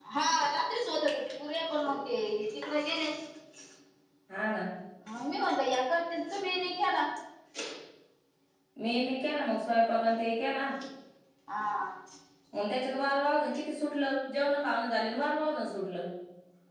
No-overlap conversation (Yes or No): Yes